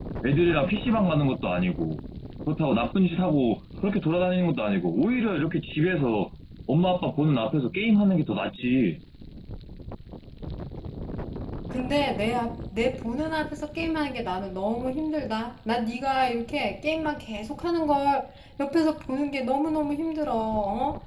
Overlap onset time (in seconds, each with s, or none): none